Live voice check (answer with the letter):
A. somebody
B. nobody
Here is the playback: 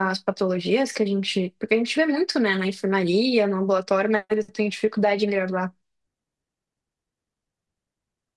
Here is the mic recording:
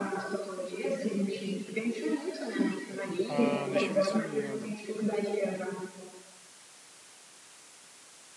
A